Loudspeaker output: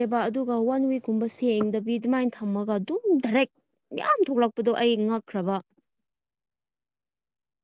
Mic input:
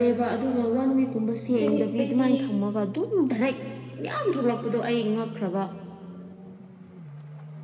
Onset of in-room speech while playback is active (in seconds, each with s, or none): 1.6 s